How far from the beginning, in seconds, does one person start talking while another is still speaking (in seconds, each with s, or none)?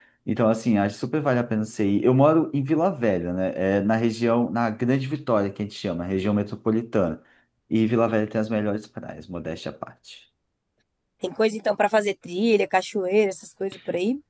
none